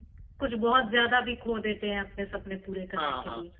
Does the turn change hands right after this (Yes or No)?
Yes